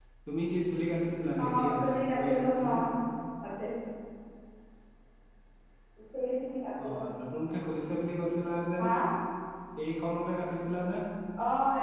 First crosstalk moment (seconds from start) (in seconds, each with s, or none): 1.4 s